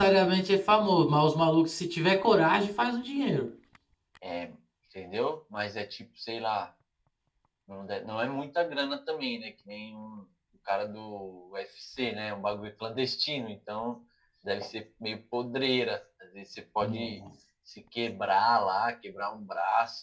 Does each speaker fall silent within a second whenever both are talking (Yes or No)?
Yes